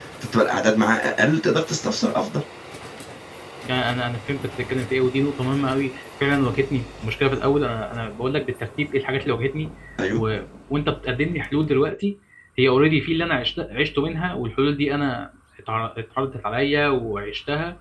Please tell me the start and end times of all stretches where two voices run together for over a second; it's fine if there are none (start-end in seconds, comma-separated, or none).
none